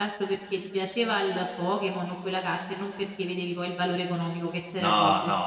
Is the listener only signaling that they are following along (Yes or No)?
No